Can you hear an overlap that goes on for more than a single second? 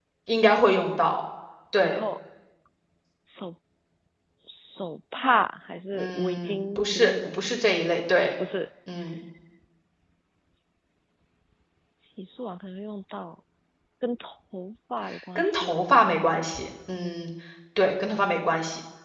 Yes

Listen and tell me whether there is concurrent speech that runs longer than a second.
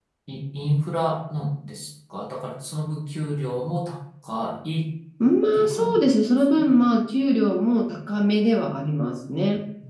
No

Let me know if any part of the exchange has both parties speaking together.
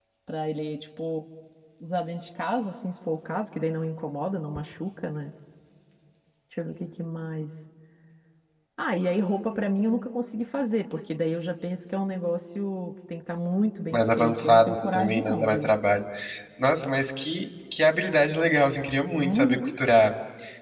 Yes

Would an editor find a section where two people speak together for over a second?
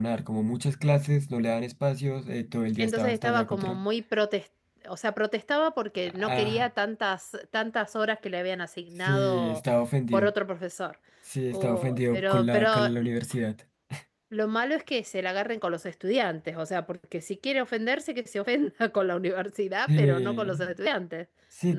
Yes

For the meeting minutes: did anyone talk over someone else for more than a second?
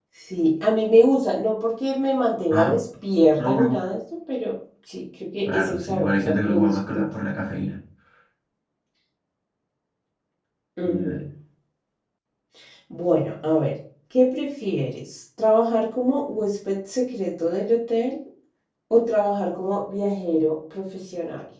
Yes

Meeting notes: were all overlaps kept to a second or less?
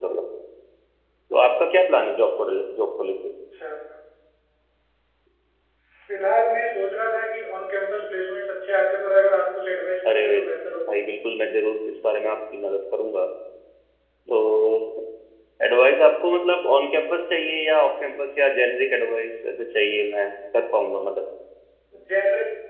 Yes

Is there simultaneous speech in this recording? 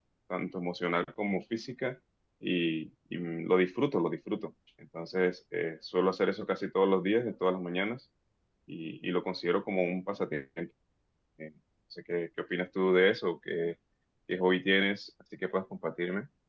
No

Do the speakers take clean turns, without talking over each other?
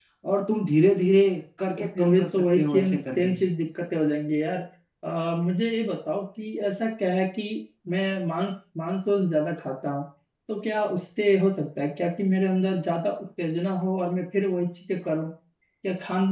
No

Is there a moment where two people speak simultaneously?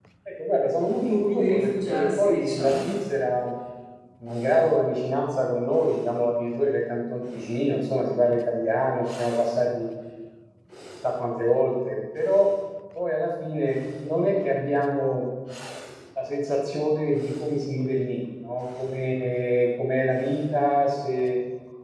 Yes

